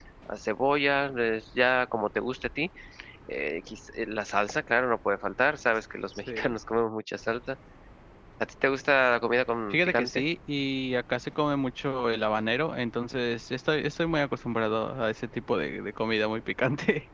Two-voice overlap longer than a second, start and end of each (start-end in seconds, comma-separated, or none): none